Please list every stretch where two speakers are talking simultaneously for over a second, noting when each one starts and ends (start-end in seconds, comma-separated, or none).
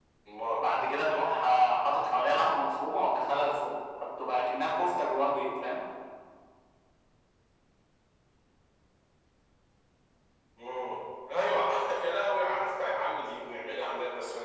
none